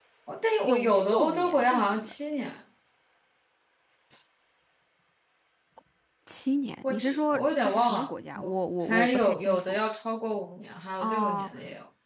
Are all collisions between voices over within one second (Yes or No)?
No